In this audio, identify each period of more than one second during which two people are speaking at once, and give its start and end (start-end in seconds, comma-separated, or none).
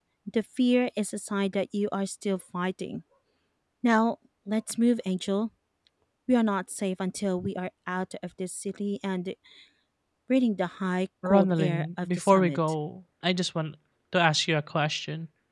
11.2-12.6